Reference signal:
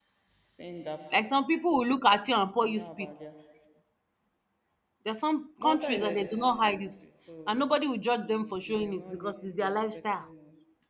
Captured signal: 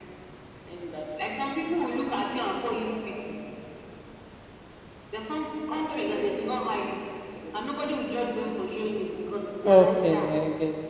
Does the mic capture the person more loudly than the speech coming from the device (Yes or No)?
Yes